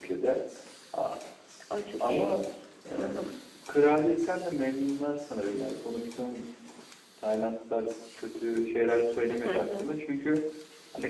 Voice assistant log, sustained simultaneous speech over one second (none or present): none